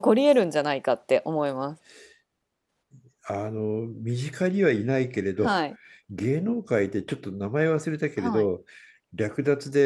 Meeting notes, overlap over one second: none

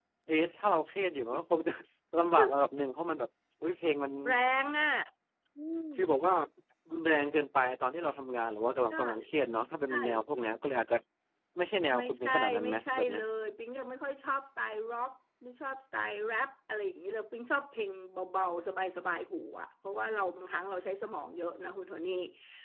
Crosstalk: present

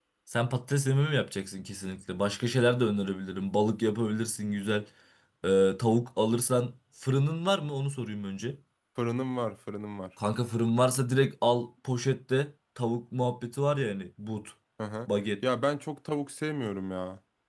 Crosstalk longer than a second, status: none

